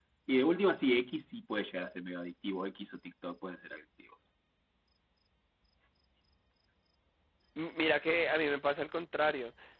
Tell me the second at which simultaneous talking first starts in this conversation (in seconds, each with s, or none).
none